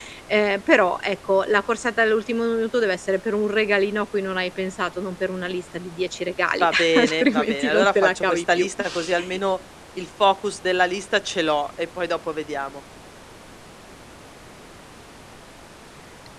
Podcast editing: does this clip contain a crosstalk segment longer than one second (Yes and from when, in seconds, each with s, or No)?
Yes, from 6.6 s